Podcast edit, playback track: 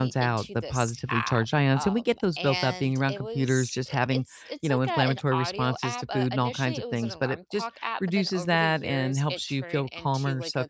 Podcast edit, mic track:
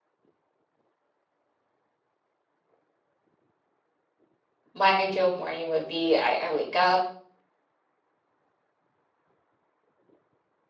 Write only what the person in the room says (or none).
my ideal morning would be I, I wake up